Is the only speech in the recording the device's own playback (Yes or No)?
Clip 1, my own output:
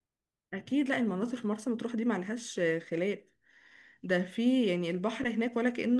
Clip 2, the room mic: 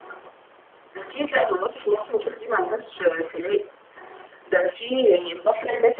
Yes